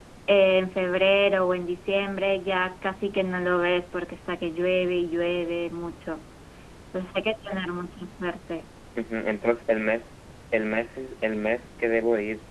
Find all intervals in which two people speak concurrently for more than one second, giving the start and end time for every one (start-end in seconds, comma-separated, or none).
none